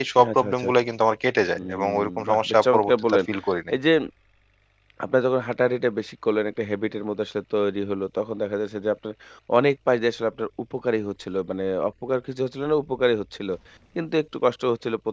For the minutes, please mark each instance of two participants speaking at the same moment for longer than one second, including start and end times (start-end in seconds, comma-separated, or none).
1.6-3.2